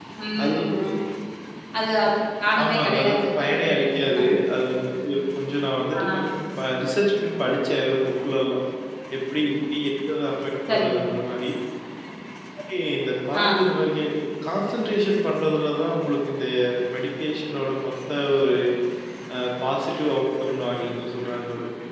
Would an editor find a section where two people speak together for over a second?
Yes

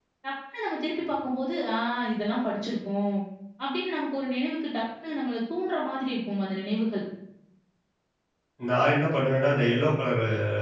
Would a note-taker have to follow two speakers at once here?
No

